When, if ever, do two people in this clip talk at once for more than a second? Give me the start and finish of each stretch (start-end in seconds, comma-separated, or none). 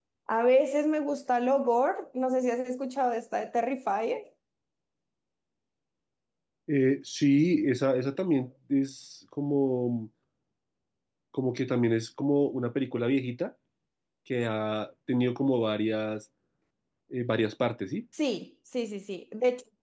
none